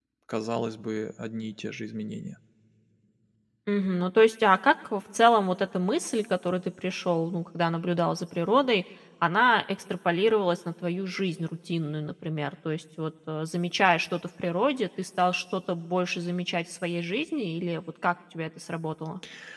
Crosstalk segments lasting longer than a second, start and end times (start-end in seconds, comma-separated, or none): none